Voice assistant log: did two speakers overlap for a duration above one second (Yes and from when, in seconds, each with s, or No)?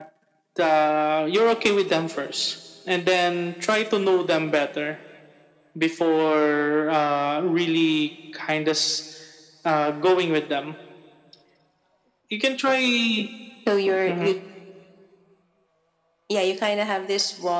No